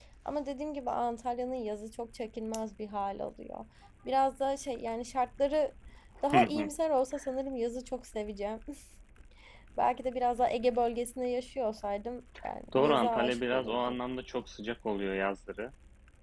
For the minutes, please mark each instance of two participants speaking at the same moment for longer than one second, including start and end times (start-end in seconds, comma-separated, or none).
12.7-13.9